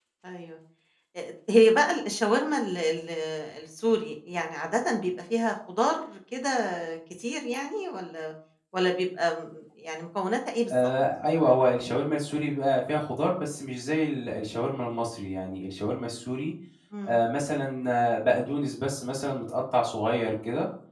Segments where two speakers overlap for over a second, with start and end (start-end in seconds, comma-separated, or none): none